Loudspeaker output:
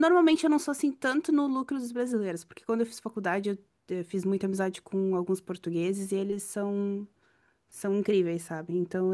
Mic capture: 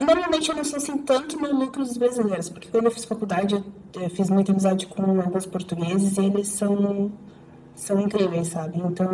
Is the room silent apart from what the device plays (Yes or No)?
Yes